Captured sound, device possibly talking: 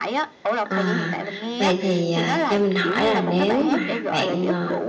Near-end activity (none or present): present